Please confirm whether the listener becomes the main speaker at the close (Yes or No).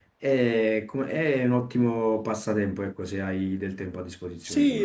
Yes